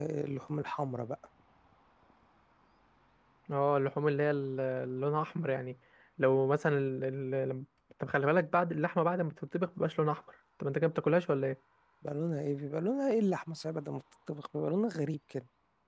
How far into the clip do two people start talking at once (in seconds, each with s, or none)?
none